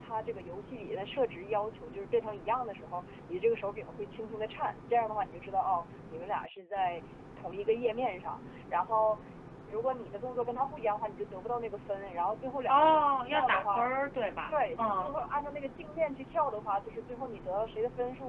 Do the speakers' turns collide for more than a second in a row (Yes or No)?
Yes